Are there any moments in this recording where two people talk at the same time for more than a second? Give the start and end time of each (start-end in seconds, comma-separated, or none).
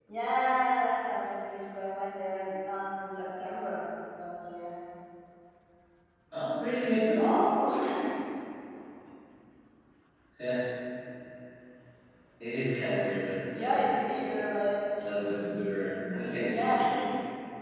none